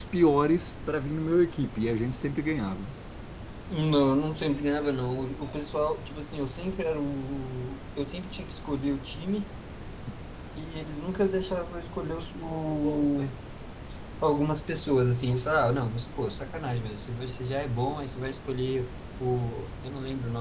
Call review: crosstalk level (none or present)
none